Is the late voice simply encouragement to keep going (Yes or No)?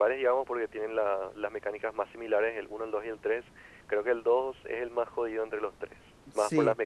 No